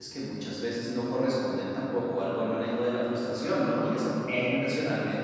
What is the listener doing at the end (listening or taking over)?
listening